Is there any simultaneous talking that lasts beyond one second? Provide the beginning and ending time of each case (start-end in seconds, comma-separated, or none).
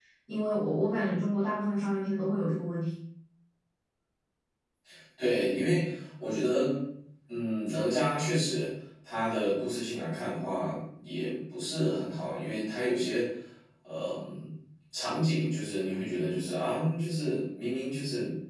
none